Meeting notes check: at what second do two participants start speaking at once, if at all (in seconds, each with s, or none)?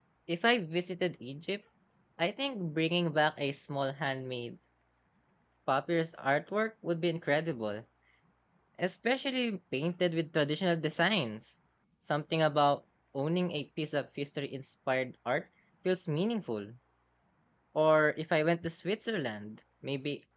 none